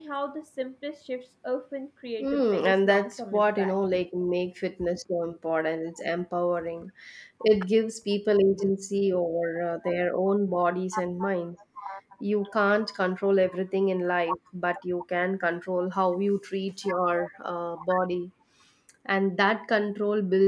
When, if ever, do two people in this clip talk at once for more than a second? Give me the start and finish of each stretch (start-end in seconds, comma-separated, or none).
2.2-3.8